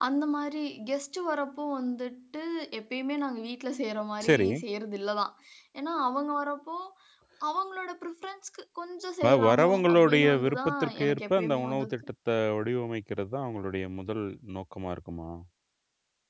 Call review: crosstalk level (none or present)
present